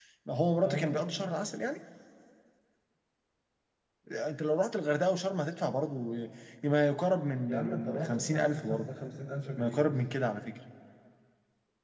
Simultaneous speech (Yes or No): Yes